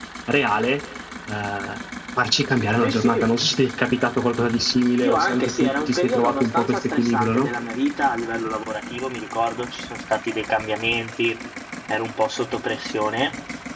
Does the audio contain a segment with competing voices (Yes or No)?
Yes